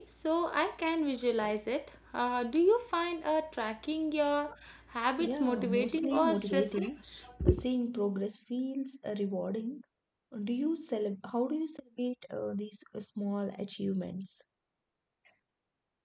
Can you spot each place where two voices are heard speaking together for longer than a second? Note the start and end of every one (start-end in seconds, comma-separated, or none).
5.2-6.9